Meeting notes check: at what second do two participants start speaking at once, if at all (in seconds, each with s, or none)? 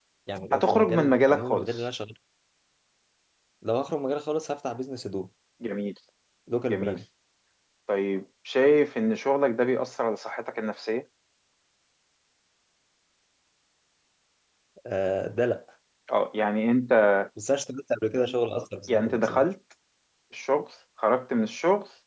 0.5 s